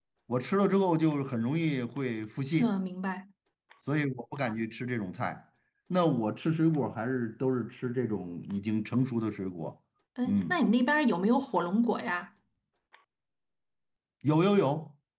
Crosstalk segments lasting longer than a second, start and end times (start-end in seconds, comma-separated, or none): none